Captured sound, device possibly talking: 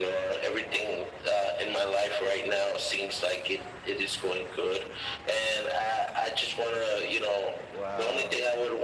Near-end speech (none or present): present